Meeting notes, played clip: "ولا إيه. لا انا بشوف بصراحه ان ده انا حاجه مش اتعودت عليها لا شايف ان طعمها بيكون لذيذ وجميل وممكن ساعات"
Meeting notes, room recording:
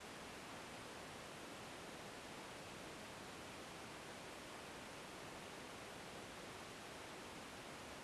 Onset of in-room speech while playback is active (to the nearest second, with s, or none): none